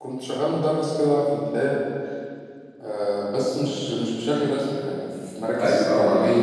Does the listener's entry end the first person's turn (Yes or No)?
Yes